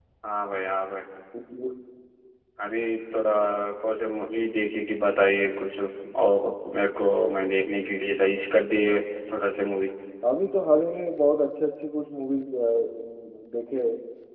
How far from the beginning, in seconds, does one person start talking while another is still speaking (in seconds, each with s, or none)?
none